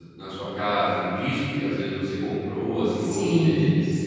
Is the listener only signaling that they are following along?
No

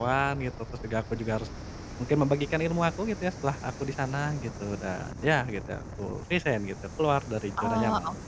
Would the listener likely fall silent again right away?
No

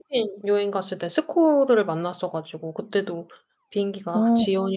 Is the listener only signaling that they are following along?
Yes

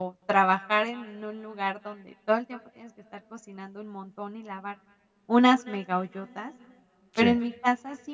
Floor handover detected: No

